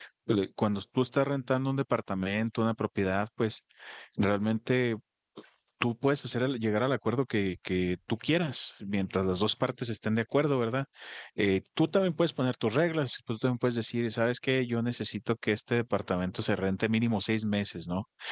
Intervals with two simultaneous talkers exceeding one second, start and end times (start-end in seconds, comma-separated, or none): none